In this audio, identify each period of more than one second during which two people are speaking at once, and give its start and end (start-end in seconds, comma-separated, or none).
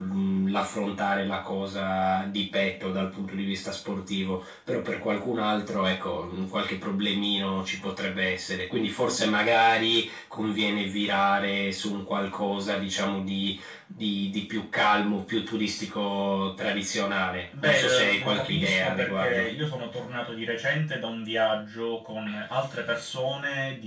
17.6-19.5